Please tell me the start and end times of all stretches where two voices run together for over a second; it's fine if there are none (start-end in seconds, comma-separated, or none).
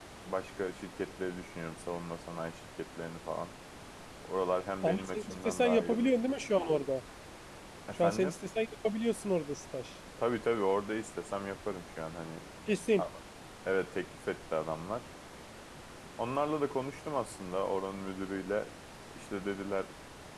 4.8-6.1